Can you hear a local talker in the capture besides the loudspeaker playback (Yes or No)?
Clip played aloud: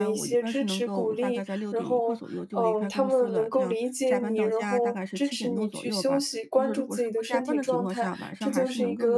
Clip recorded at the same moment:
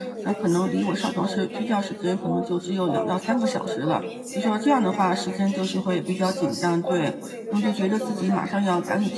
Yes